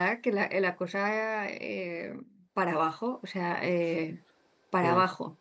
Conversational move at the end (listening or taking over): listening